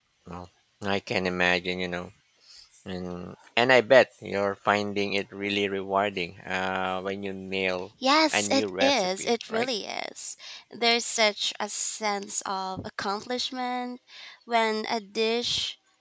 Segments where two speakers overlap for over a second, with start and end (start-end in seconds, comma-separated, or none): 8.3-9.7